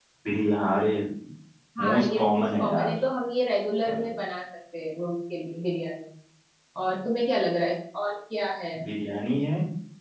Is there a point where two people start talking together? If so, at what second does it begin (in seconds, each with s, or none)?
1.8 s